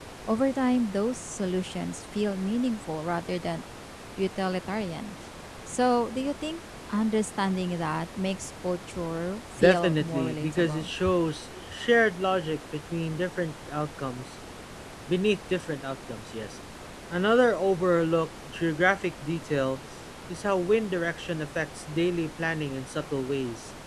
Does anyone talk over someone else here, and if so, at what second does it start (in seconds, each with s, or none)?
9.6 s